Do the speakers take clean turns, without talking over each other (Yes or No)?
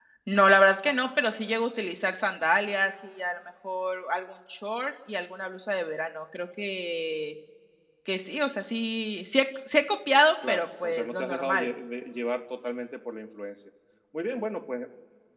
No